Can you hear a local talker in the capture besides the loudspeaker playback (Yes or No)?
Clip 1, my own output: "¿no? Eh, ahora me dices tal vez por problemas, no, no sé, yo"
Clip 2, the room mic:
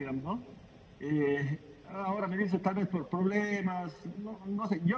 No